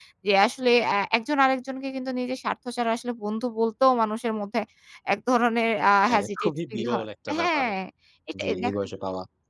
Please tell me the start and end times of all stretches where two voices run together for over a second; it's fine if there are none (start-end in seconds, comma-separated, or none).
6.1-7.6